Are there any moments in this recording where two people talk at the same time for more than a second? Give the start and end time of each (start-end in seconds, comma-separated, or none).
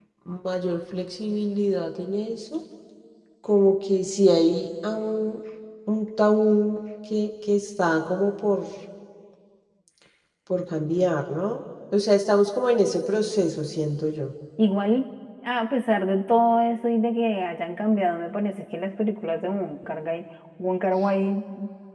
none